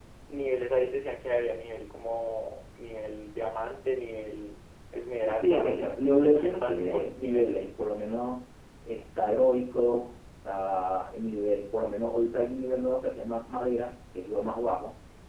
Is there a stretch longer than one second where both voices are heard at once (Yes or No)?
Yes